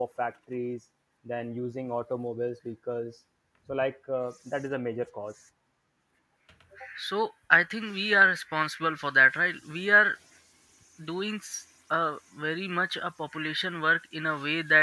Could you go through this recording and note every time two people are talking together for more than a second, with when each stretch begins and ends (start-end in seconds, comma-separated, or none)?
none